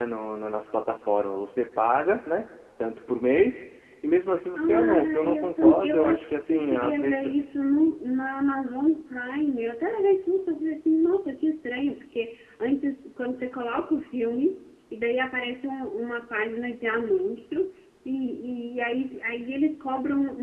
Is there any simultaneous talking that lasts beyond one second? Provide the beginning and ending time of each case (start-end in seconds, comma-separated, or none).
4.6-7.3